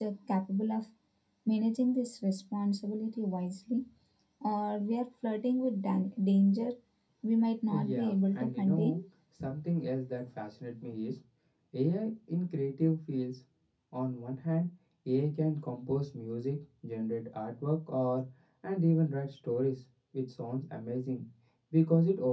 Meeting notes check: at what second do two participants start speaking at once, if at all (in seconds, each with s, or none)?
7.7 s